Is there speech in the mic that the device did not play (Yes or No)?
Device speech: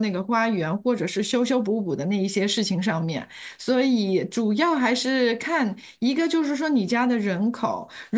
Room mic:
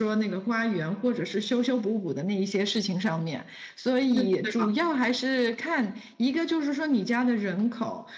Yes